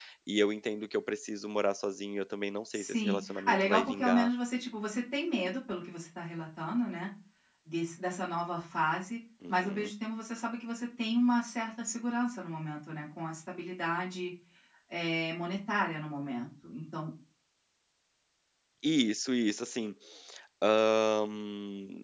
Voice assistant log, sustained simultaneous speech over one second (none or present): present